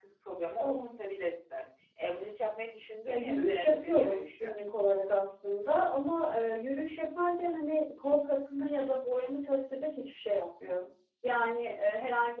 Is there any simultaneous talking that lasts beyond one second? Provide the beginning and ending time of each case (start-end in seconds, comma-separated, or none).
3.1-4.5